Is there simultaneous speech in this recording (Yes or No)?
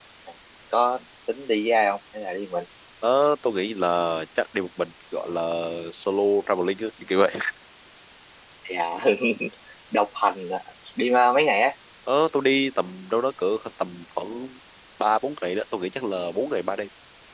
No